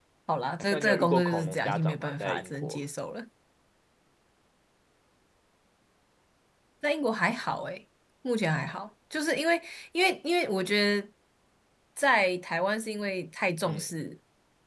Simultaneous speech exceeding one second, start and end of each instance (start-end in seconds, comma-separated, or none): 0.7-2.8